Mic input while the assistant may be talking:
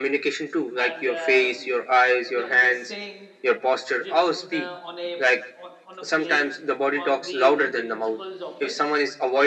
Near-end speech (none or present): present